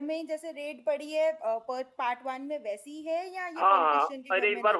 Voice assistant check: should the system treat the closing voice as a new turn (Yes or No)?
Yes